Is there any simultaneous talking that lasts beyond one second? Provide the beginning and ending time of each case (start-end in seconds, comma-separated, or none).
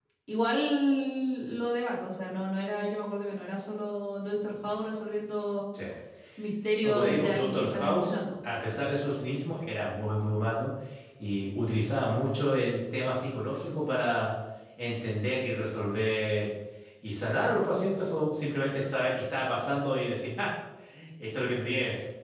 6.8-8.2